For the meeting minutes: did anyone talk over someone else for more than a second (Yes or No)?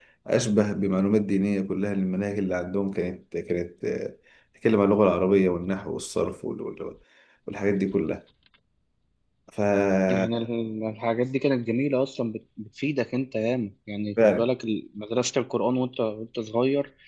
No